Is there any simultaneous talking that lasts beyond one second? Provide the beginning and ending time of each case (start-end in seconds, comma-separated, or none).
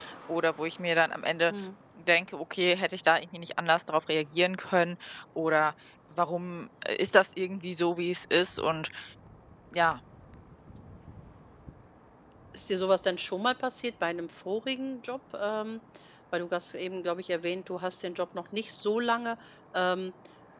none